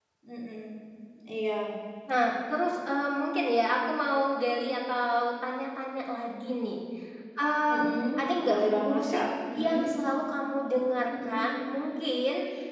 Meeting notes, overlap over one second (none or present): present